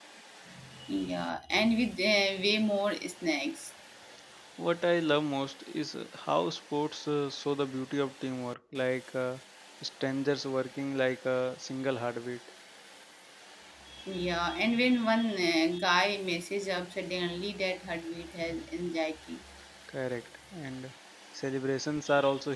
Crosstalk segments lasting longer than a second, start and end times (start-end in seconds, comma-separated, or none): none